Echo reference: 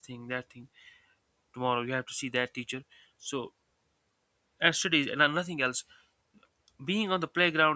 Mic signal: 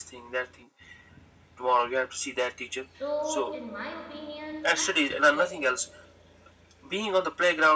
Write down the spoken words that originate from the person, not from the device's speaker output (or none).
So, in my opinion, I think yes,